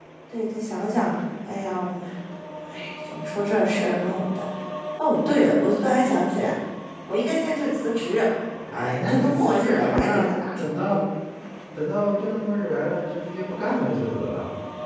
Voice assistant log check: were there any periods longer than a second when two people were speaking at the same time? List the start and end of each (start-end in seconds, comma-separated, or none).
8.7-11.0